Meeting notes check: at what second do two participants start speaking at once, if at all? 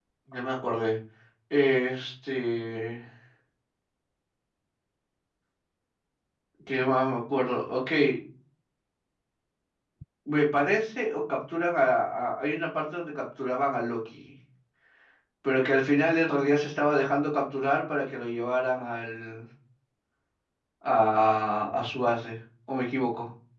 none

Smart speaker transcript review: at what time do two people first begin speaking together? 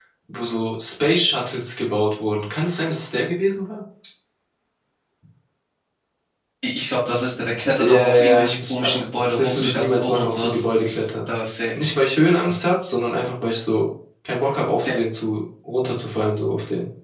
8 s

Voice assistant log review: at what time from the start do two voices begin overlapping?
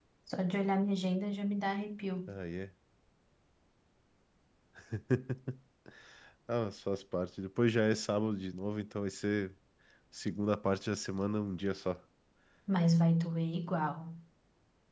none

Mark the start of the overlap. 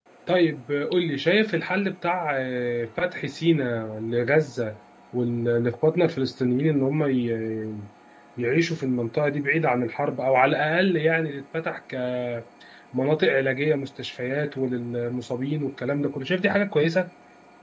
none

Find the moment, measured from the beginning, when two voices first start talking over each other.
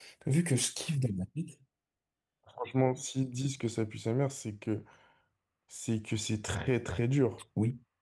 none

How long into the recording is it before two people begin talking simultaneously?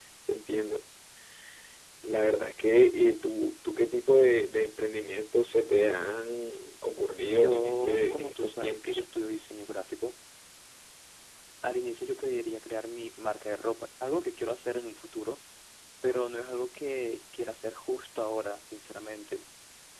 7 s

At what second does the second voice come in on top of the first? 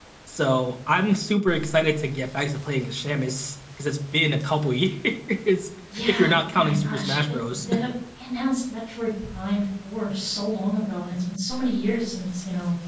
6 s

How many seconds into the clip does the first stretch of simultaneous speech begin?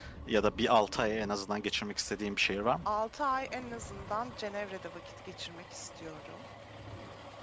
none

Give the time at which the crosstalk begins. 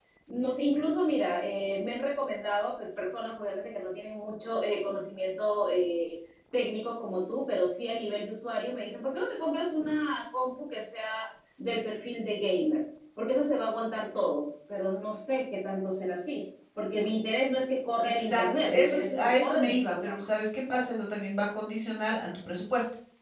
18 s

